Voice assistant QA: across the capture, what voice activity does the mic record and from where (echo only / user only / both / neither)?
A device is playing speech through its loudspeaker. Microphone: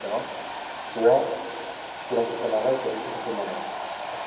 echo only